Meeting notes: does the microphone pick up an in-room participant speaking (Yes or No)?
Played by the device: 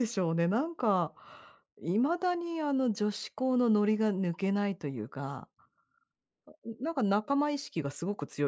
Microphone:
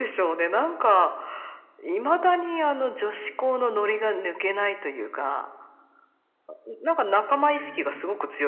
Yes